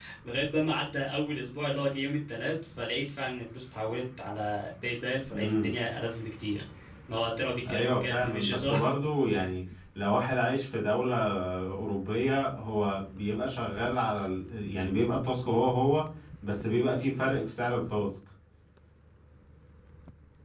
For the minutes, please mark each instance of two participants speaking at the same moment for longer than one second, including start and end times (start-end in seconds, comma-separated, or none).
7.7-8.9